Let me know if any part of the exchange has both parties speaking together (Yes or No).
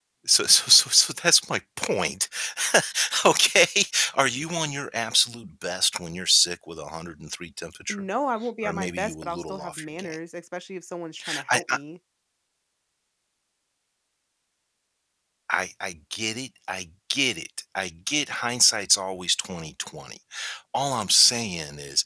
Yes